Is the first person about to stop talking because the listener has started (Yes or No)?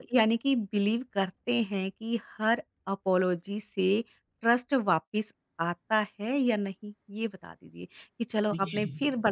No